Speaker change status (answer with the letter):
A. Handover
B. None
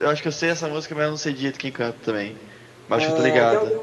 A